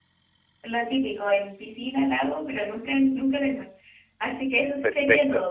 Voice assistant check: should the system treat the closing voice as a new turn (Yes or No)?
No